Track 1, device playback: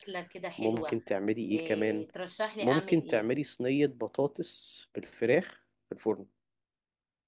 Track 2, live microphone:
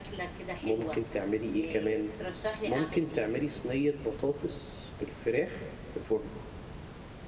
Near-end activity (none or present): none